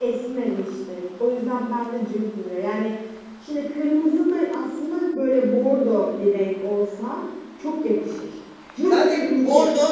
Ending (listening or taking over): taking over